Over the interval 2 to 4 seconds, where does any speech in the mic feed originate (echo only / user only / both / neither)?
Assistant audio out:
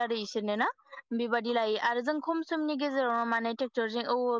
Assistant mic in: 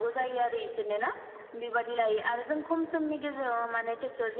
echo only